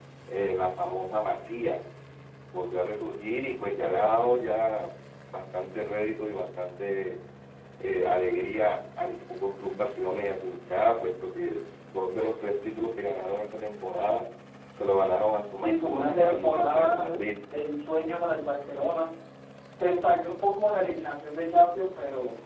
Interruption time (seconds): 15.6 s

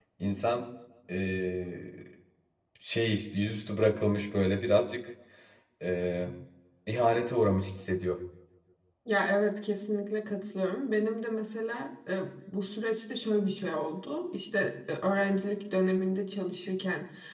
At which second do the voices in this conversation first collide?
none

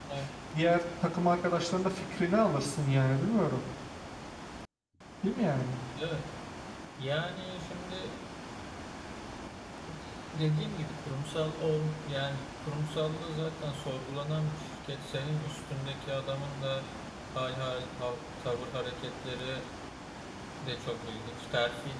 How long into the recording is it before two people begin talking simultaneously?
none

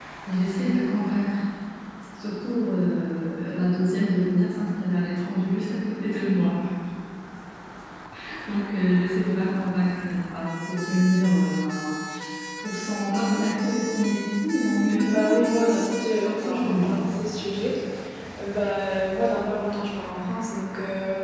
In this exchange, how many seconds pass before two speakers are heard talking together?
15.0 s

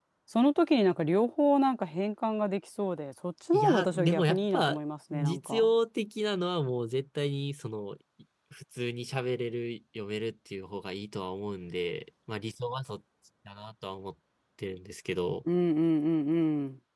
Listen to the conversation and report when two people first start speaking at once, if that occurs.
3.5 s

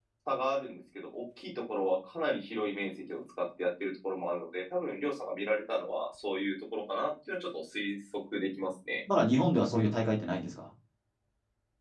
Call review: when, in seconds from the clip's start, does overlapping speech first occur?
none

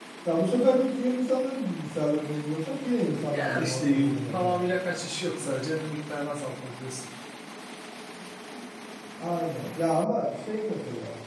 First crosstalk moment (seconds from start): 3.1 s

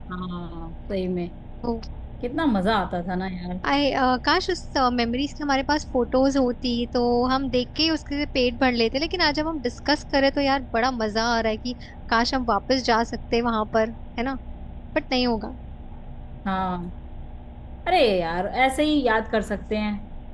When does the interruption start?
none

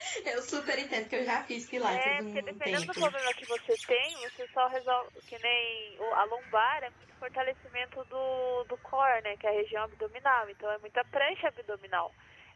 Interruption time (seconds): 1.9 s

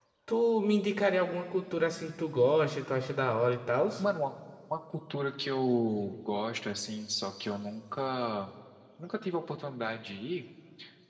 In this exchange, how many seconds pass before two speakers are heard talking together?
none

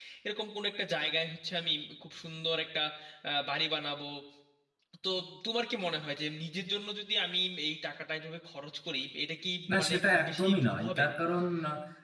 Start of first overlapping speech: 9.7 s

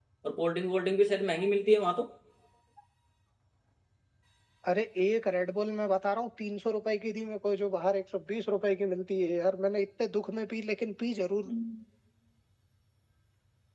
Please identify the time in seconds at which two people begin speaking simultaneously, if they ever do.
none

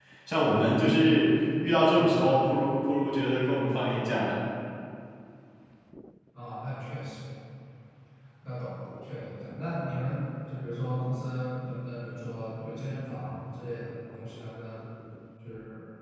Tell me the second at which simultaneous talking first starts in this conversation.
none

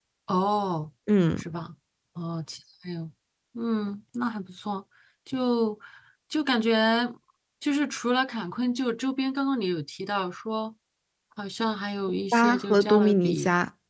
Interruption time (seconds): 12.3 s

